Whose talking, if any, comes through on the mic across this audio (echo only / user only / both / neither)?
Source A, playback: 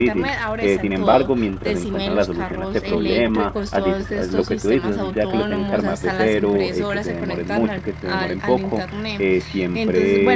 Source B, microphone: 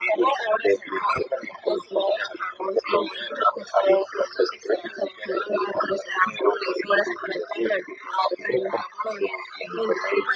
echo only